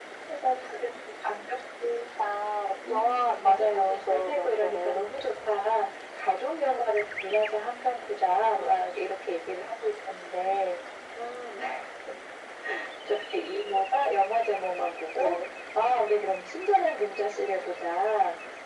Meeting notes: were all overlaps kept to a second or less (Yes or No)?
No